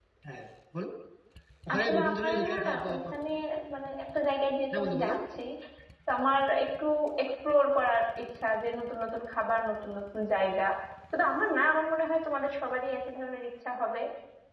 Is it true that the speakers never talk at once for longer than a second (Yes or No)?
No